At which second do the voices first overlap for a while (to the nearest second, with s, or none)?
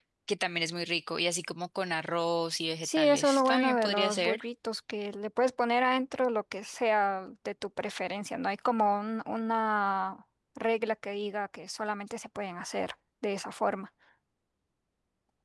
3 s